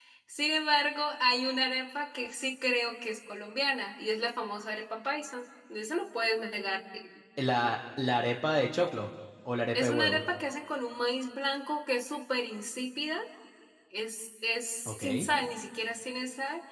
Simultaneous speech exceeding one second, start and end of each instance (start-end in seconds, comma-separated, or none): none